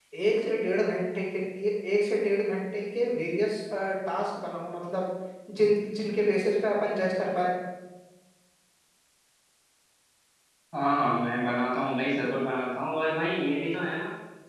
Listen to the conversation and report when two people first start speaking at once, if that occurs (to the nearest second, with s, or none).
none